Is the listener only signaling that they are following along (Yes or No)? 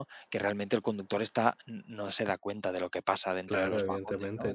No